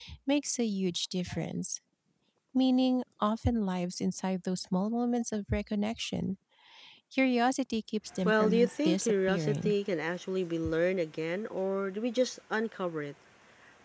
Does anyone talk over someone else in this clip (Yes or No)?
Yes